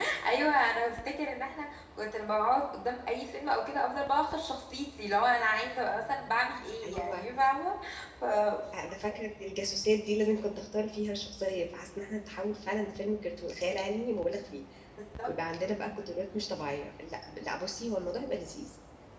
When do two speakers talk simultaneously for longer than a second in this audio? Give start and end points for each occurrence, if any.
none

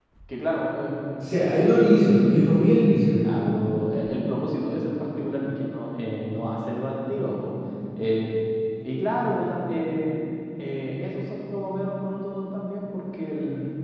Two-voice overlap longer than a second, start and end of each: none

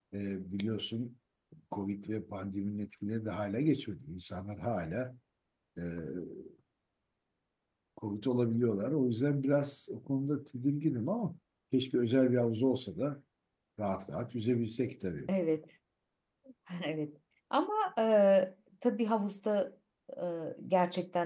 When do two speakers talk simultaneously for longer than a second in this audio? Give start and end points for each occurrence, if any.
none

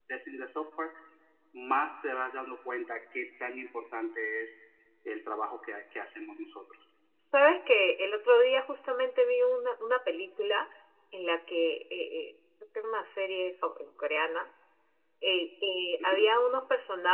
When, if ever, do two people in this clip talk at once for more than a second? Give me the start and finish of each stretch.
none

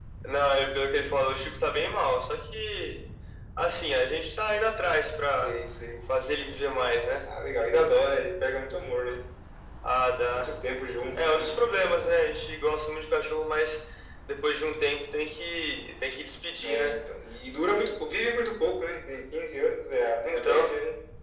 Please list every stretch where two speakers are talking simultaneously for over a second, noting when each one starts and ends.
none

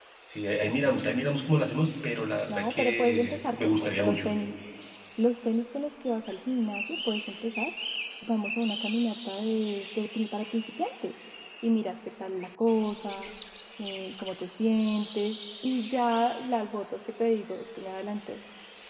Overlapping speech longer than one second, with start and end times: 2.5-4.3

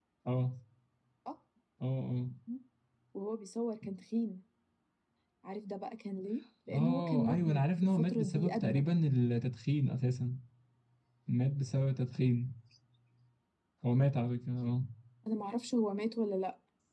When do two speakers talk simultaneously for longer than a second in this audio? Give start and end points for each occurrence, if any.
6.7-8.9

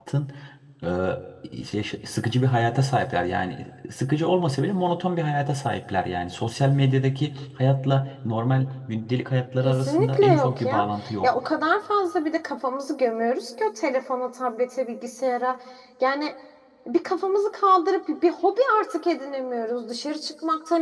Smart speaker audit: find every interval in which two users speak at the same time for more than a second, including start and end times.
9.6-10.8

